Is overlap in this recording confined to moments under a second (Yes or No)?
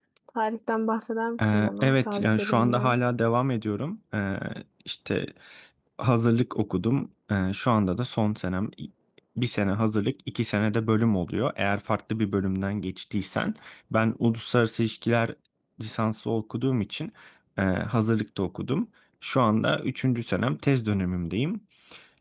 No